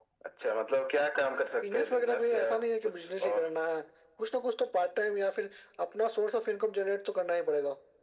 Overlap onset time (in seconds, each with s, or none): 1.6 s